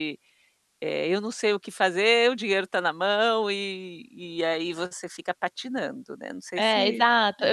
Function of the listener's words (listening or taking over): taking over